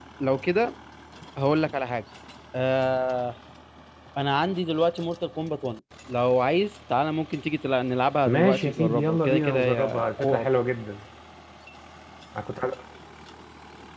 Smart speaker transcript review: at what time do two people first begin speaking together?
8.2 s

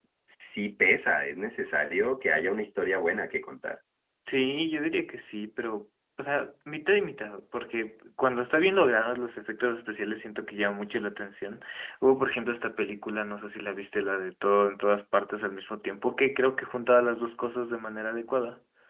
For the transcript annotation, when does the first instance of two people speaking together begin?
none

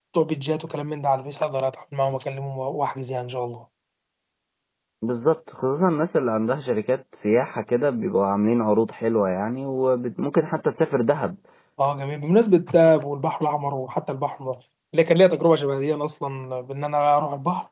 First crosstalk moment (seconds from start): none

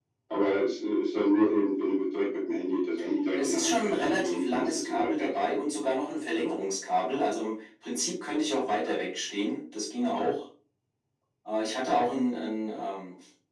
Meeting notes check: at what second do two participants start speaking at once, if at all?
3.3 s

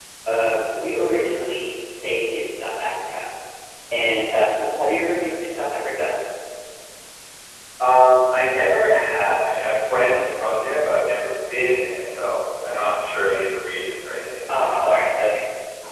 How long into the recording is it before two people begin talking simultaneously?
none

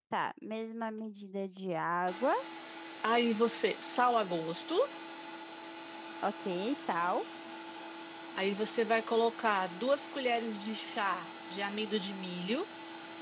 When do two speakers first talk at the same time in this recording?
none

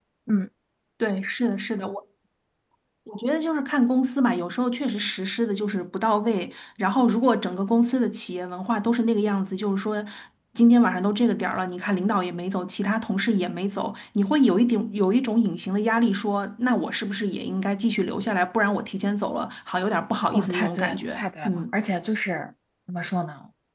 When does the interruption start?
20.2 s

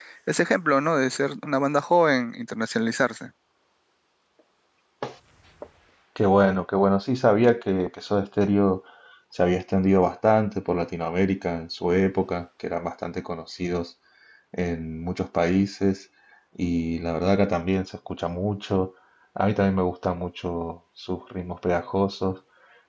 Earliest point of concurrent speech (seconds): none

